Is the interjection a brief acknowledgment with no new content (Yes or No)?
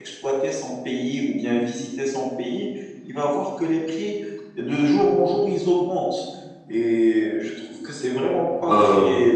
Yes